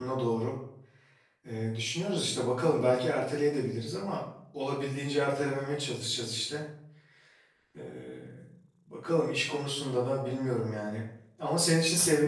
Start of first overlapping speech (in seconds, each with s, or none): none